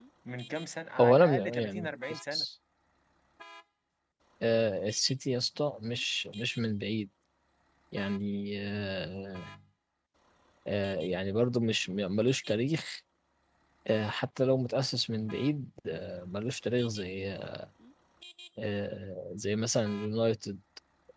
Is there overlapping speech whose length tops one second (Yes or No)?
Yes